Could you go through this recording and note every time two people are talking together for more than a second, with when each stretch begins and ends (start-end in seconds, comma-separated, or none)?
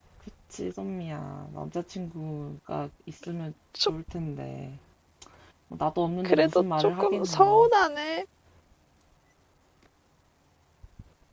6.2-7.6